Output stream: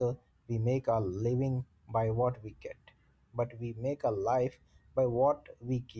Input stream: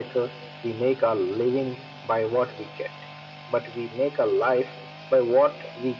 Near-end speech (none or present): none